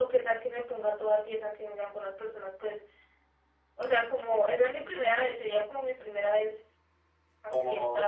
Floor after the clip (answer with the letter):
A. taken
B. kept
A